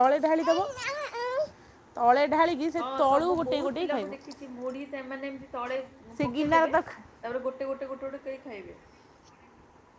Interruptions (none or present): present